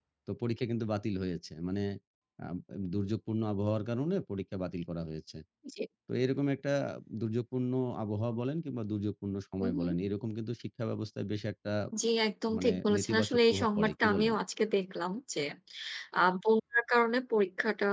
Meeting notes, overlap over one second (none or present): present